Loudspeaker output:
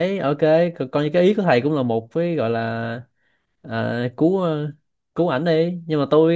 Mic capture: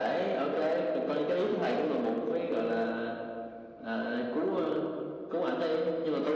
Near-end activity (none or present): none